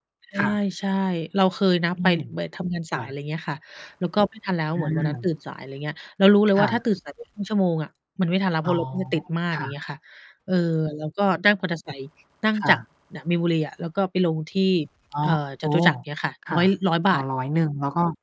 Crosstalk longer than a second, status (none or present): none